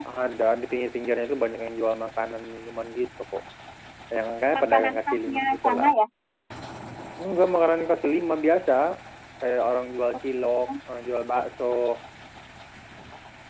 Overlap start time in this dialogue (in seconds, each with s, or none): 4.5 s